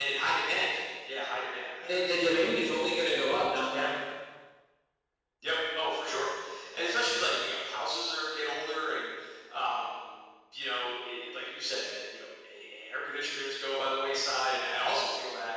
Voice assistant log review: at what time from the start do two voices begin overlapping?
2 s

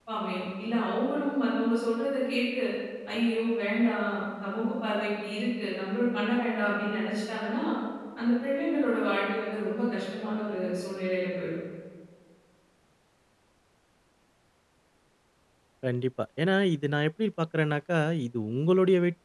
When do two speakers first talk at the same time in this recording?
none

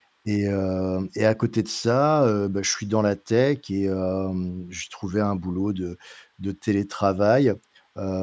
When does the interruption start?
none

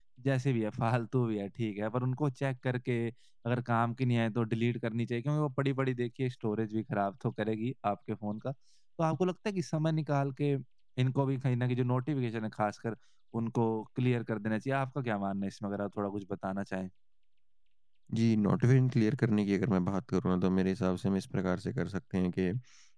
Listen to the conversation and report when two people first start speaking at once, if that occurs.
none

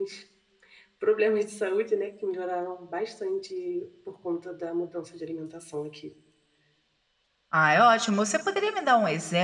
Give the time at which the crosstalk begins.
none

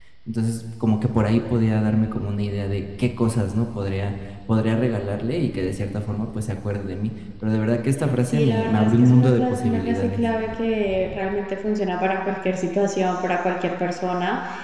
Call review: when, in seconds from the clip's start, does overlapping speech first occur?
8 s

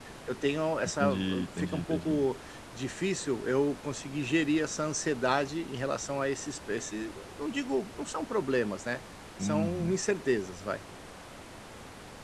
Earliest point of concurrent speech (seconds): 1 s

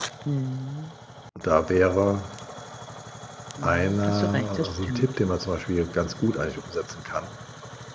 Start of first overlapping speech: 4 s

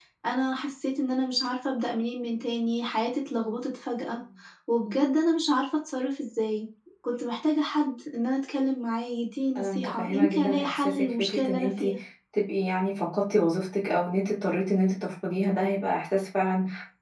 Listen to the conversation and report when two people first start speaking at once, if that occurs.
10 s

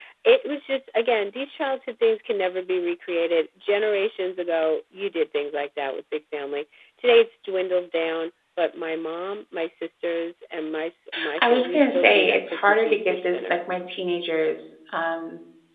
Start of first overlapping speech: 11 s

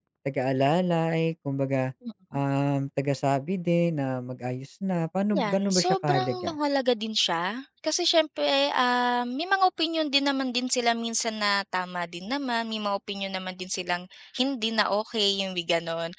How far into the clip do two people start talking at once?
5 s

